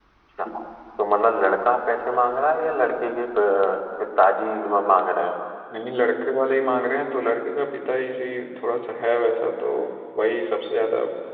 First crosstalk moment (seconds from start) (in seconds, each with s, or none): none